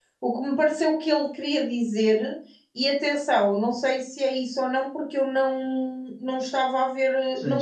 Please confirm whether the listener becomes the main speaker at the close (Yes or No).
No